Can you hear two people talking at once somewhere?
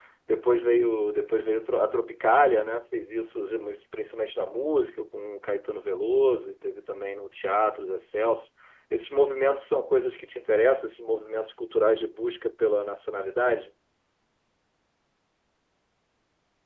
No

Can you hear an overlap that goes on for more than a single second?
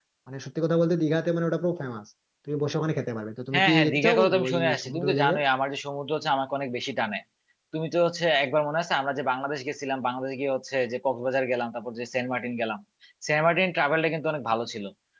Yes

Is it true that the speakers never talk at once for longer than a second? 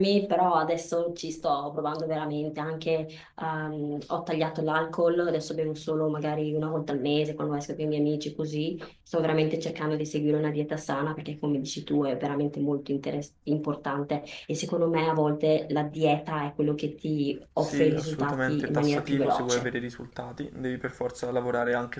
No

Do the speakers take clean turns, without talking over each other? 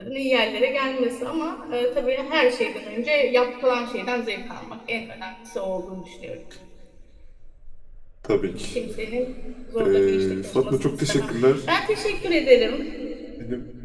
No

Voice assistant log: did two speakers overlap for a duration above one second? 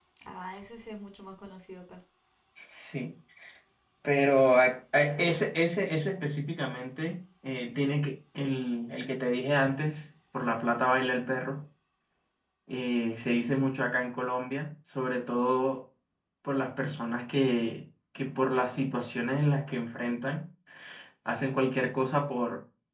No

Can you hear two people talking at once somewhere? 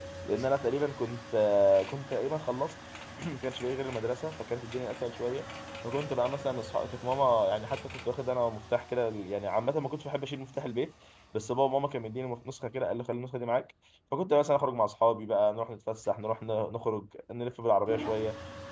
No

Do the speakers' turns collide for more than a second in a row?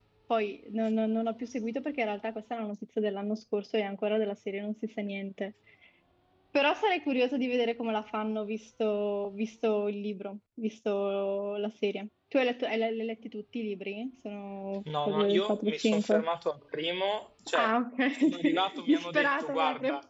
Yes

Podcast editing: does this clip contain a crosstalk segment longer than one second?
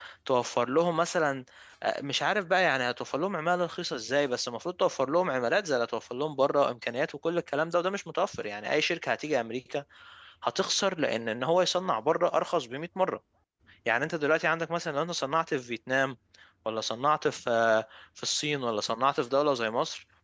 No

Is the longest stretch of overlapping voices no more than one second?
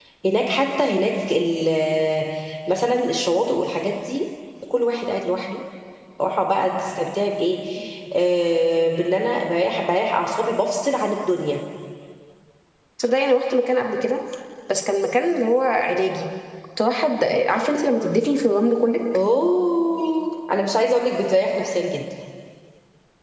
Yes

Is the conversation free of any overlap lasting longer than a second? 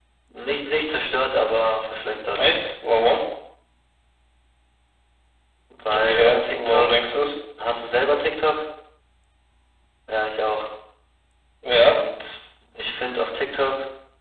No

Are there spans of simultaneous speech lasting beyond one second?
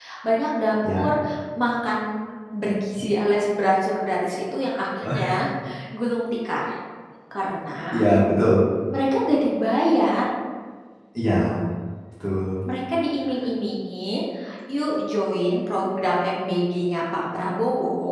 No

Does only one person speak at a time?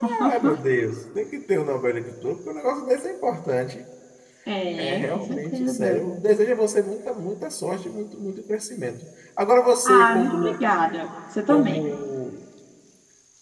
No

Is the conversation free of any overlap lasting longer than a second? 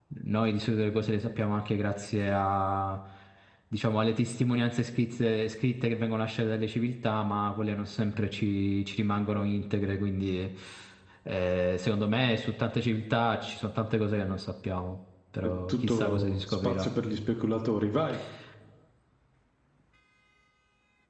No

